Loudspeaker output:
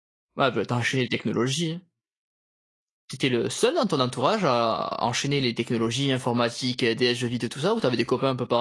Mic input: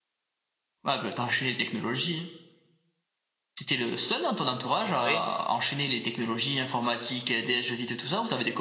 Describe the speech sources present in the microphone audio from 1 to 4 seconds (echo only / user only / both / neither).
echo only